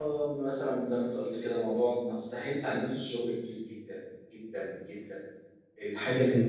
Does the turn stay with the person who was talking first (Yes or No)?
Yes